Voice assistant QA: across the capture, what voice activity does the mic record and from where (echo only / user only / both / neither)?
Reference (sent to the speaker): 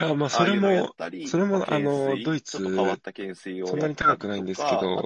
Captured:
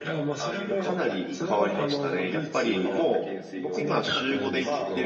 both